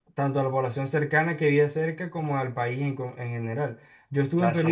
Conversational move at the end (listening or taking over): listening